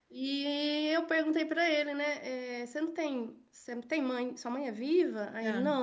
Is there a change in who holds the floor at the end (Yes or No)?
No